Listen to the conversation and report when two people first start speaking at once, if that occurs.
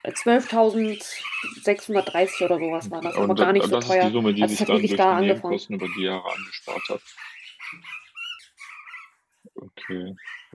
3 s

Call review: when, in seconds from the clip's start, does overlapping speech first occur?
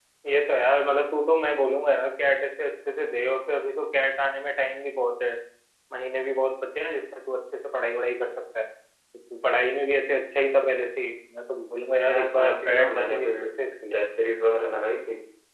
12 s

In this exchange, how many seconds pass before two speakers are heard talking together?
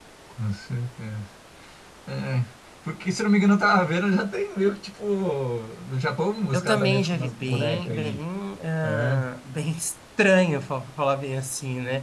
7 s

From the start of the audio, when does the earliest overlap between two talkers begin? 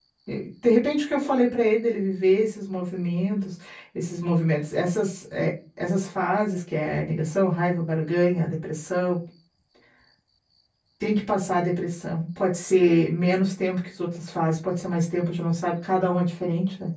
none

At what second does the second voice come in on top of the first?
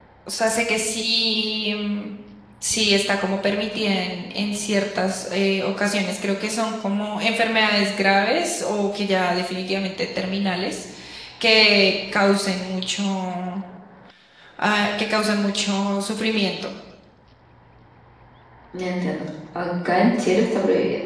none

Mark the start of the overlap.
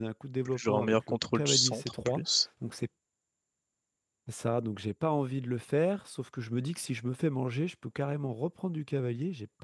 1 s

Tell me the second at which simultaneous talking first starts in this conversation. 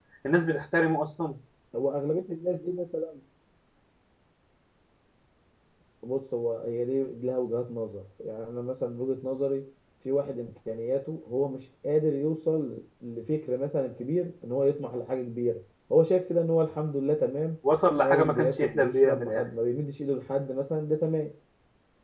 18 s

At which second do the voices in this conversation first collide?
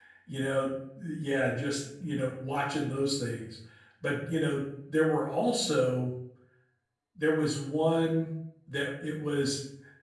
none

